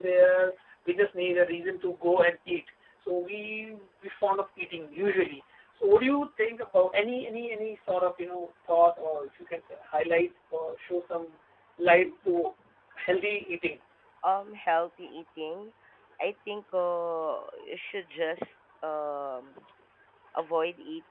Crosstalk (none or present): none